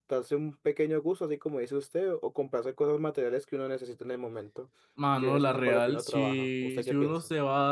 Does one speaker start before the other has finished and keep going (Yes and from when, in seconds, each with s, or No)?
Yes, from 5.2 s